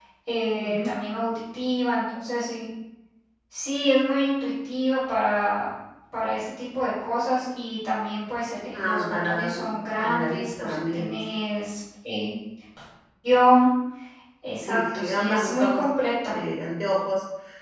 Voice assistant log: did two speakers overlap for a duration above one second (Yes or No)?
Yes